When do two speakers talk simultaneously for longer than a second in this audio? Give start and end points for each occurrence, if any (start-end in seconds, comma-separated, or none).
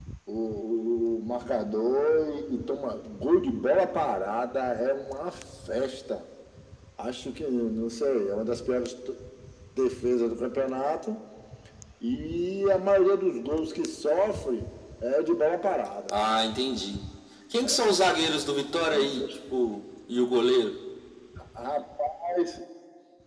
none